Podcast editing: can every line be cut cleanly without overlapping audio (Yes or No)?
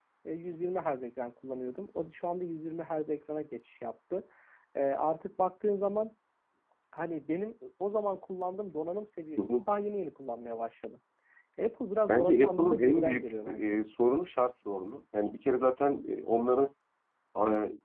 No